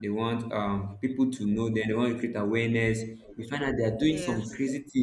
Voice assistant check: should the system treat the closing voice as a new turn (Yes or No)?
No